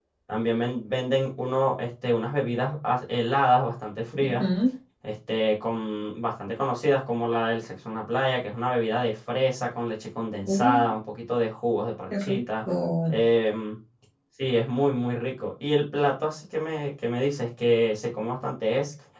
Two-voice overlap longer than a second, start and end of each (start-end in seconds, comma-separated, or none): none